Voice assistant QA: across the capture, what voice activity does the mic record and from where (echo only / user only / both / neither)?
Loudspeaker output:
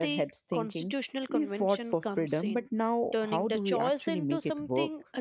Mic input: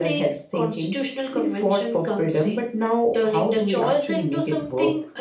echo only